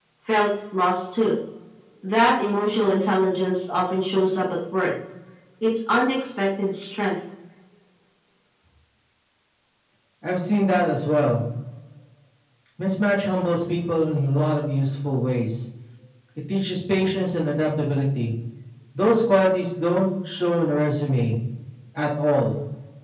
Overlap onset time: none

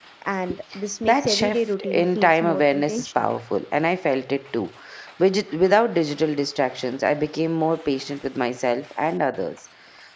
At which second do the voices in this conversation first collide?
1 s

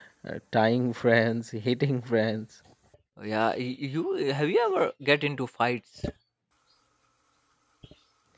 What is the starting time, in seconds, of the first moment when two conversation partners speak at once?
none

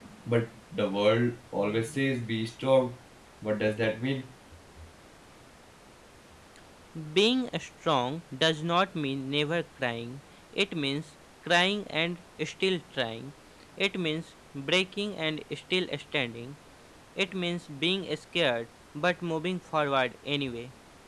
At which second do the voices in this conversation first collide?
none

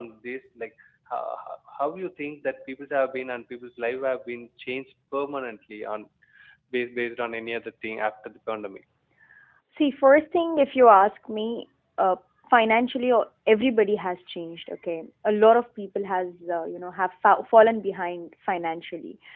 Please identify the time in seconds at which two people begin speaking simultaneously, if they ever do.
none

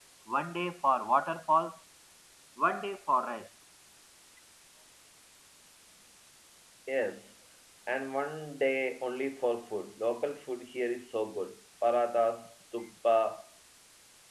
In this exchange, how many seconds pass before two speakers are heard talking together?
none

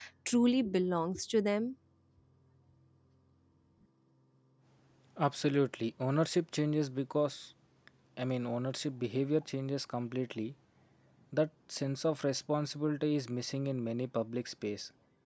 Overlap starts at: none

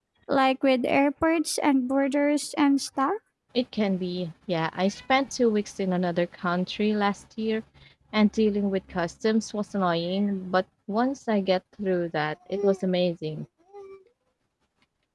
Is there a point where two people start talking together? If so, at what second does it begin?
none

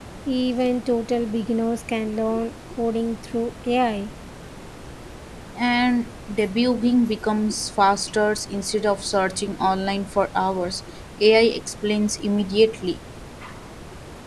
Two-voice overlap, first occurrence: none

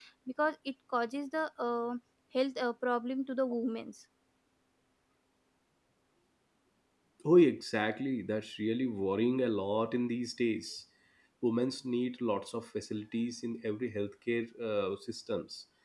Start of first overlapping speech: none

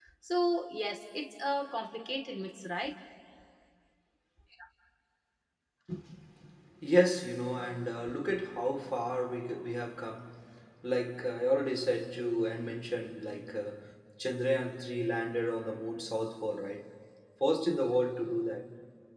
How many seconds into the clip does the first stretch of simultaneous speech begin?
none

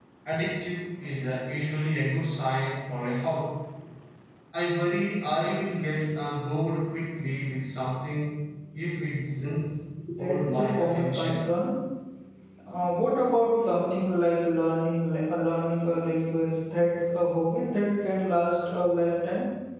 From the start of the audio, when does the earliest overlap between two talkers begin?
10 s

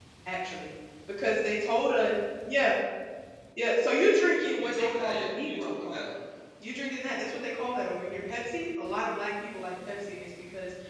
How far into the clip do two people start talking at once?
5 s

